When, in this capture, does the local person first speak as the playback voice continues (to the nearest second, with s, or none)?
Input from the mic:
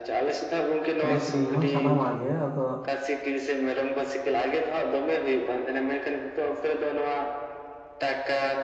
1 s